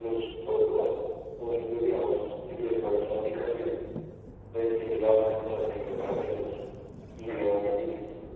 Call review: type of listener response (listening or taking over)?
listening